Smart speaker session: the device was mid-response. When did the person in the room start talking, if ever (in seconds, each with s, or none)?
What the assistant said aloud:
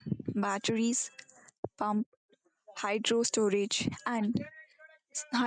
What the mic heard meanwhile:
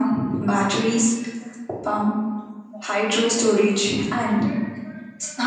none